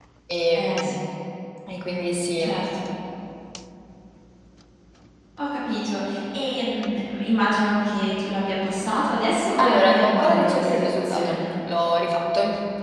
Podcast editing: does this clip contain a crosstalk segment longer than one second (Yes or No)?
Yes